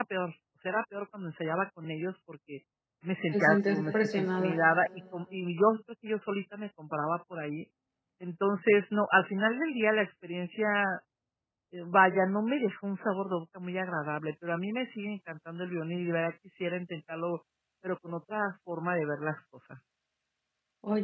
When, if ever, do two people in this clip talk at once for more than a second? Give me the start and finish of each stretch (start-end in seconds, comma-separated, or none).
3.3-4.5